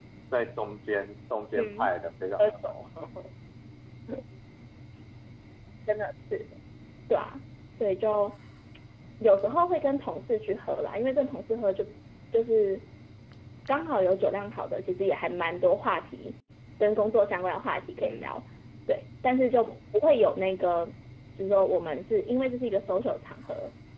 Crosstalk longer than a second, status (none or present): none